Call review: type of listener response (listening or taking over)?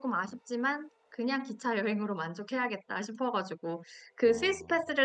listening